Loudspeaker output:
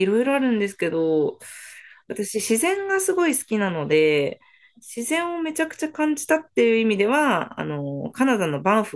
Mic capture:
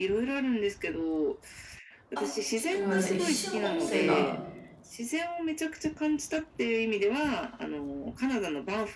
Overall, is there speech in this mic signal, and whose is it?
both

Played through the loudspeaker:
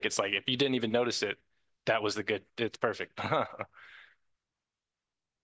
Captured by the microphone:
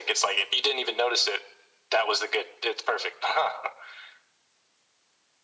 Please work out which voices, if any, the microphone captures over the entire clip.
echo only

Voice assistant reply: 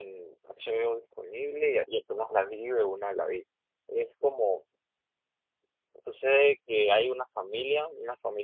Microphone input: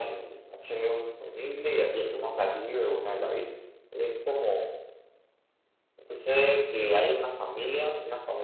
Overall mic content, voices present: echo only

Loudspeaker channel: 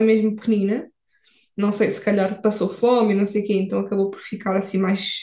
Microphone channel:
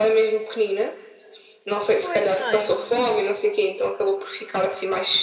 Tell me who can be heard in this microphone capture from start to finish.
both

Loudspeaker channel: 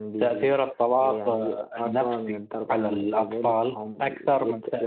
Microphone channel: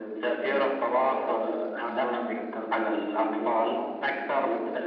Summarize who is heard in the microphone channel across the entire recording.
echo only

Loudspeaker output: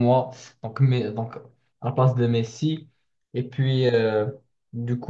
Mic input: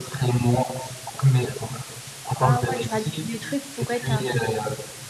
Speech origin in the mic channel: both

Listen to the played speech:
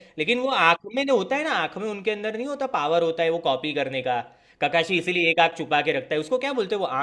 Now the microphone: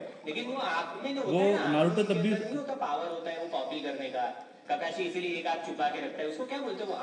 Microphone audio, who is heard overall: both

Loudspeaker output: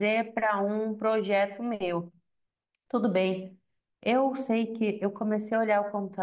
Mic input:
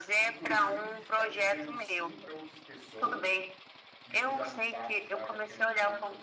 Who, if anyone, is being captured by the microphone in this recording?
both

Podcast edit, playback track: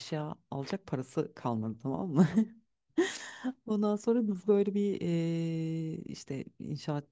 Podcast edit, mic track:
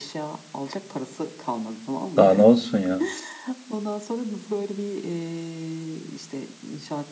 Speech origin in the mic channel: both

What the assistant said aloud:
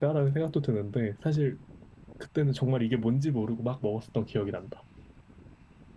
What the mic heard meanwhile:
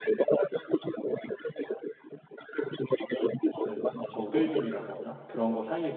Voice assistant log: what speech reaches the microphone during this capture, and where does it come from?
both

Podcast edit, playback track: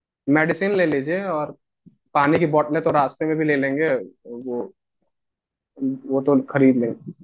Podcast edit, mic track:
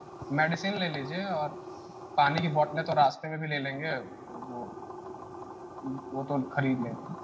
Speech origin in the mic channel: echo only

